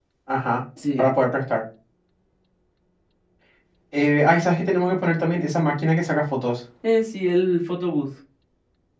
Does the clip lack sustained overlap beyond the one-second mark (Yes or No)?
Yes